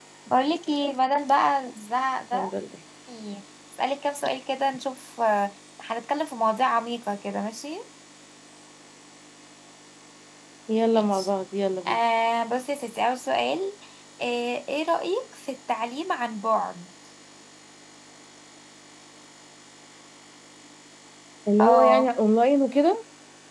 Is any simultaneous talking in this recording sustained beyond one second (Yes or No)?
No